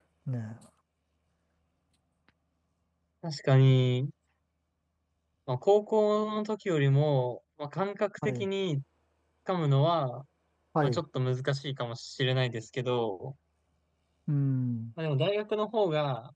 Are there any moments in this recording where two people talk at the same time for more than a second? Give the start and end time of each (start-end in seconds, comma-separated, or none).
none